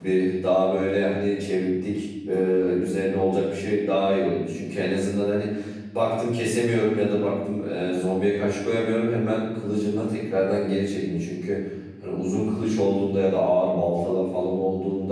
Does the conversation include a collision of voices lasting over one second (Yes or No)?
No